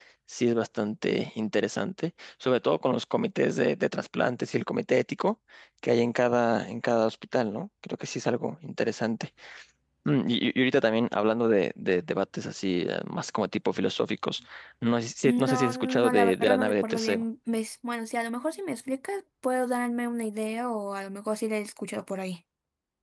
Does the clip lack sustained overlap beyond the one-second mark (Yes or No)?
No